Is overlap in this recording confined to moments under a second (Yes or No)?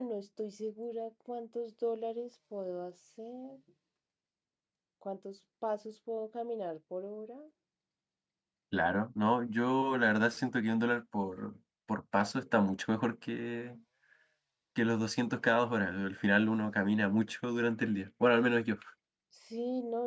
Yes